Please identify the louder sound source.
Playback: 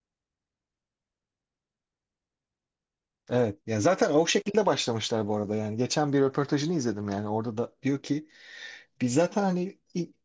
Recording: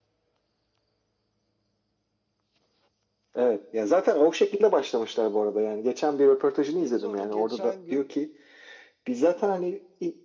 echo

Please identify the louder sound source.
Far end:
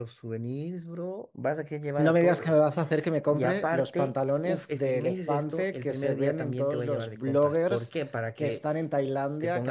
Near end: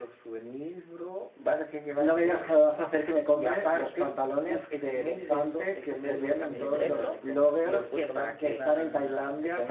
echo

